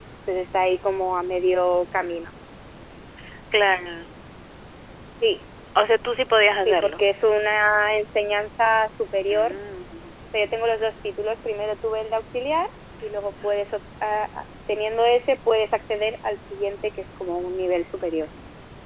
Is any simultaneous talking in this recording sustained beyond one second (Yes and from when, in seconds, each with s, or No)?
No